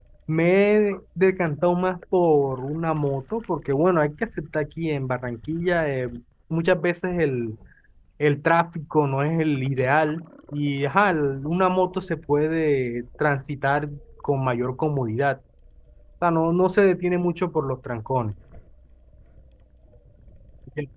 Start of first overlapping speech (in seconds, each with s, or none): none